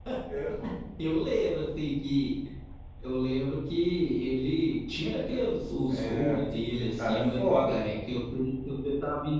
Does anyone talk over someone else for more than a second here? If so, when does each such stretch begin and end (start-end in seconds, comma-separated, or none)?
5.9-7.8